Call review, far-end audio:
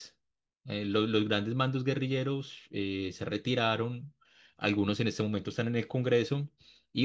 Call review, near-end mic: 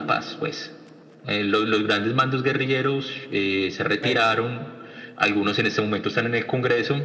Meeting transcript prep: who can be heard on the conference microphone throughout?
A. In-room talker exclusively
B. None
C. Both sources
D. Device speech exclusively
C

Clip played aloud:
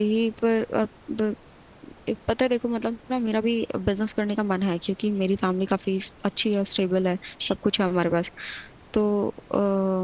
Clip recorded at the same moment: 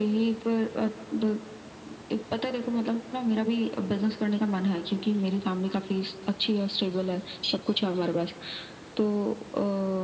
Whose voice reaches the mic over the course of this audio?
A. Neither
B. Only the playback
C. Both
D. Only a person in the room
B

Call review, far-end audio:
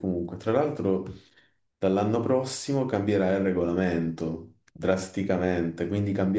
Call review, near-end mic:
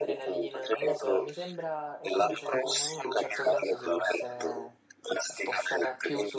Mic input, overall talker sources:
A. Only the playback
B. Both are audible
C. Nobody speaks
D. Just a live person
B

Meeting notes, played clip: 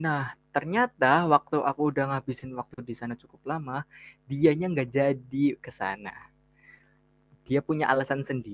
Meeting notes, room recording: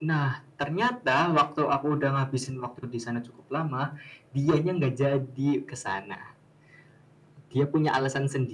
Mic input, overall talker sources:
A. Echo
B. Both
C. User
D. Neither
A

